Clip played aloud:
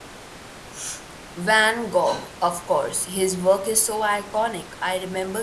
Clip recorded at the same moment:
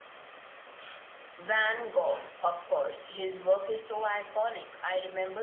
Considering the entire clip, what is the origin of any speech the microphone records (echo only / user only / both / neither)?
echo only